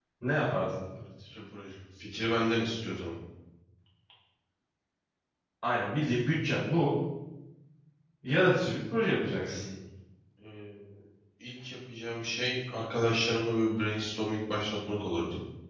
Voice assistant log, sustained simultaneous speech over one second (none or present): none